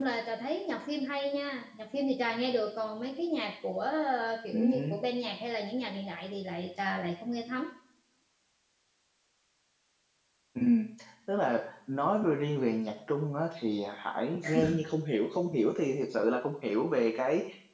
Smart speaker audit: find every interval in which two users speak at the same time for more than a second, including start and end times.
none

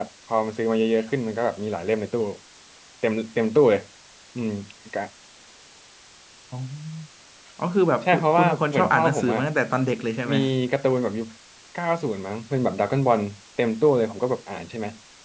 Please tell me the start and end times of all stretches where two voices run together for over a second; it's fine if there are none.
8.0-9.4

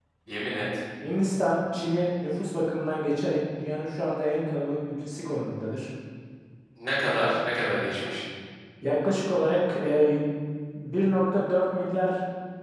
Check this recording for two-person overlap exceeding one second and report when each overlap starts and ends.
none

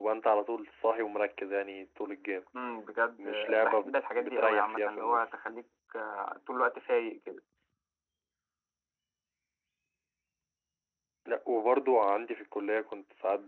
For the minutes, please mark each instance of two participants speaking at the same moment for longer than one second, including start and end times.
3.2-5.3

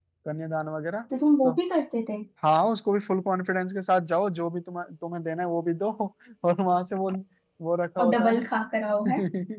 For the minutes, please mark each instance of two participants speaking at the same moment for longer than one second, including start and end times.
none

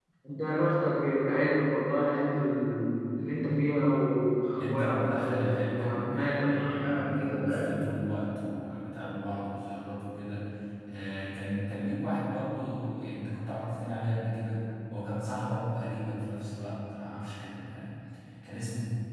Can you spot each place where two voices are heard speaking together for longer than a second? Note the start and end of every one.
4.6-7.8

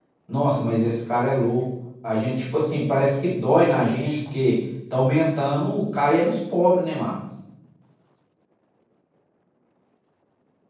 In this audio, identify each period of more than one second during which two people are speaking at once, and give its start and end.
none

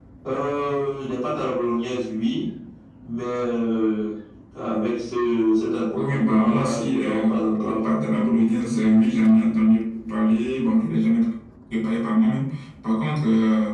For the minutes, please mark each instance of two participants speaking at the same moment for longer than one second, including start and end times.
5.9-7.8

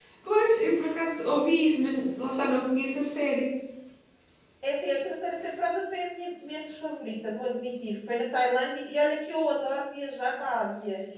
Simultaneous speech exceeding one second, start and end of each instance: none

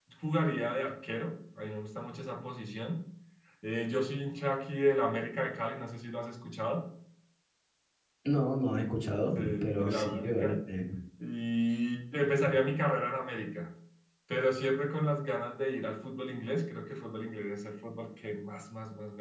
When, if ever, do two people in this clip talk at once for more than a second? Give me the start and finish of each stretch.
9.3-10.6

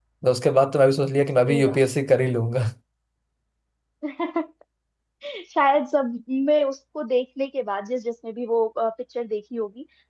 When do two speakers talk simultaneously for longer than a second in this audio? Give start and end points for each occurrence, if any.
none

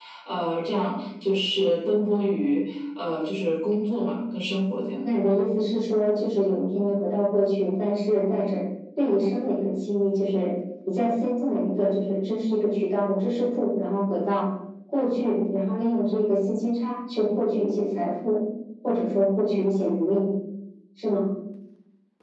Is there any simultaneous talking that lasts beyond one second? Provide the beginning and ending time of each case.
none

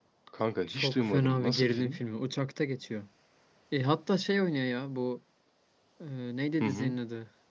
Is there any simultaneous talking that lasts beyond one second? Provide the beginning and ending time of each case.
0.7-2.0

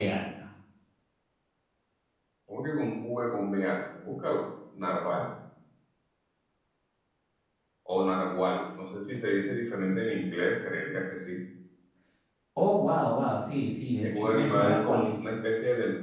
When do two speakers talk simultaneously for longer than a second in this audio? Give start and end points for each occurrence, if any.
14.0-15.3

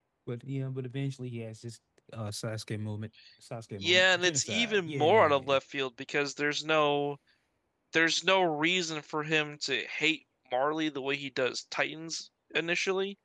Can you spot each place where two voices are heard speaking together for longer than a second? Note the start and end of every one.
3.8-5.6

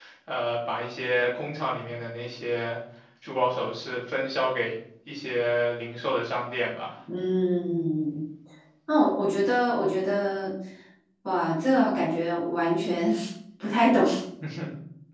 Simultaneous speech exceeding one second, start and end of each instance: none

